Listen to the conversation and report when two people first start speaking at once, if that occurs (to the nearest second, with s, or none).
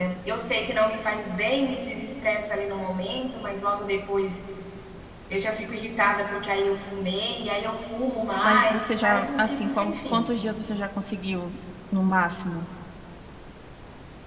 8 s